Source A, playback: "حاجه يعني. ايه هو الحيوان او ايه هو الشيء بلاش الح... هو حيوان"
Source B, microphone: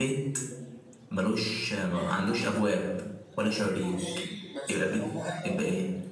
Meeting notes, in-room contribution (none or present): present